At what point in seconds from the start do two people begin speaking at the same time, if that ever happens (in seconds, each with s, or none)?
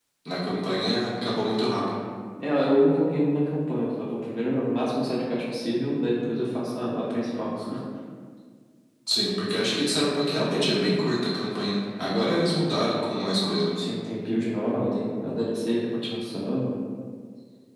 none